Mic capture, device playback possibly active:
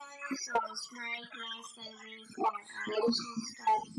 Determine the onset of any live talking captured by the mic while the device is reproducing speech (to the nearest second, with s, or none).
none